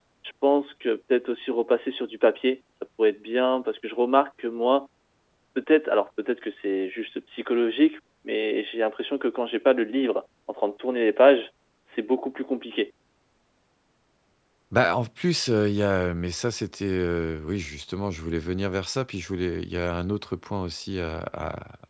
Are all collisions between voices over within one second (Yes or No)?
Yes